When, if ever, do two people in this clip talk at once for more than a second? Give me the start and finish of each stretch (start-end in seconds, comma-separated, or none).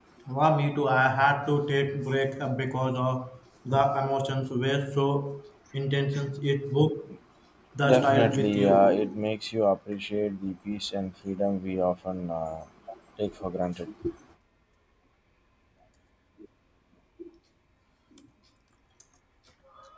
7.8-9.2